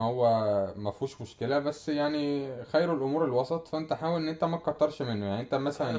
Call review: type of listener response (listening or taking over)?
taking over